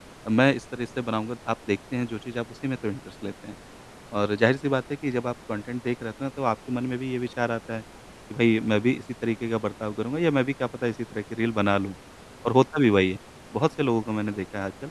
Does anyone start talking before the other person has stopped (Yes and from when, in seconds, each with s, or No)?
No